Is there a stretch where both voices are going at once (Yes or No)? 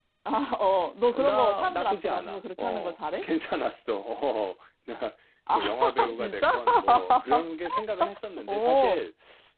Yes